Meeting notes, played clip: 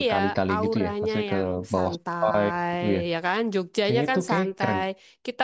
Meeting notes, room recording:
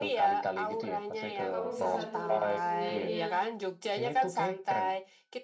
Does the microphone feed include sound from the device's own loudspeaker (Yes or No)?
Yes